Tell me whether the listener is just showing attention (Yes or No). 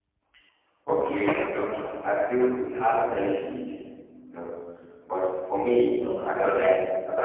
Yes